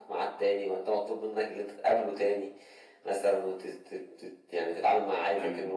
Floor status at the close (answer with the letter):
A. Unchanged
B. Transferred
A